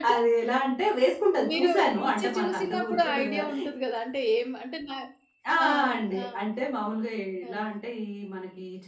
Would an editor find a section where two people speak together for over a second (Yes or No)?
Yes